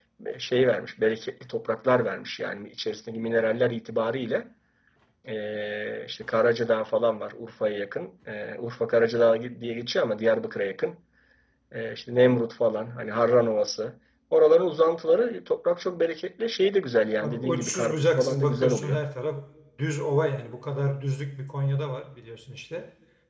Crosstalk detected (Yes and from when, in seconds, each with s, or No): Yes, from 17.2 s